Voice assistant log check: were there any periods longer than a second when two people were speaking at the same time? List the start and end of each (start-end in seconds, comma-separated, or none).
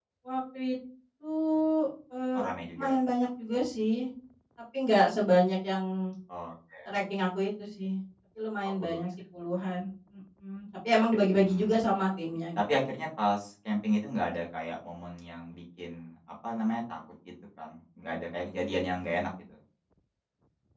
none